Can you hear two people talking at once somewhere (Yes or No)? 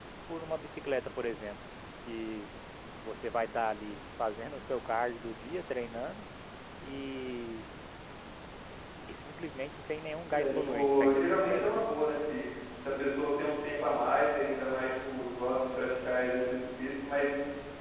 Yes